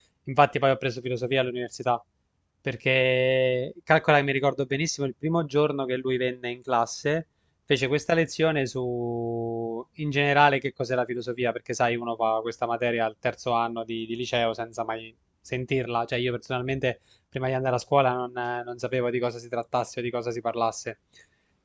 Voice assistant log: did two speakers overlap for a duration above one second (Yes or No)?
No